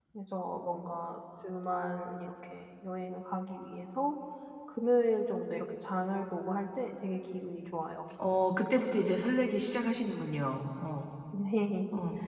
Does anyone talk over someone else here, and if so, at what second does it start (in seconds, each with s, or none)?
none